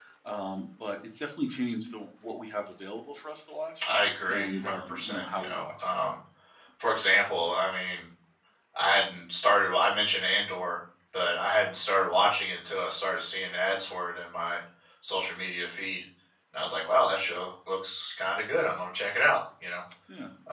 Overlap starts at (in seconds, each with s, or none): 4.3 s